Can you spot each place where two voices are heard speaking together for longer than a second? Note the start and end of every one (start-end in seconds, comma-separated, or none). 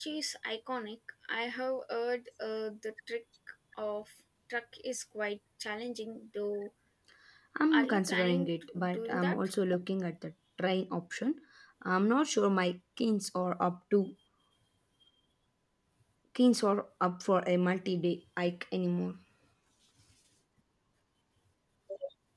7.7-9.4